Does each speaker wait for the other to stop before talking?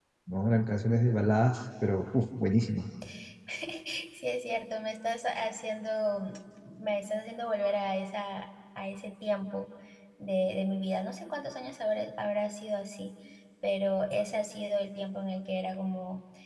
Yes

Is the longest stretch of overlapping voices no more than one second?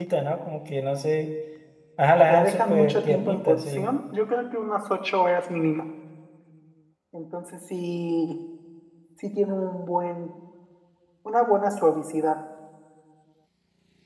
No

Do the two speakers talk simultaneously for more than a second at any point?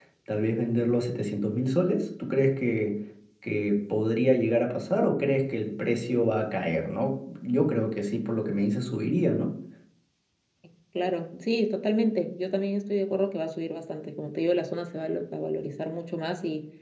No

